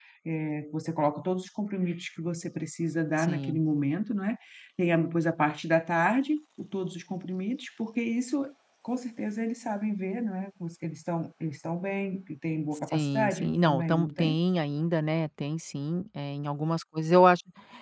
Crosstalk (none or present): present